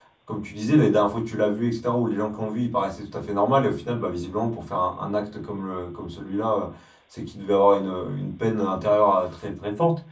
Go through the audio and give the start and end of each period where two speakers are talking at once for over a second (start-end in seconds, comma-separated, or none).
none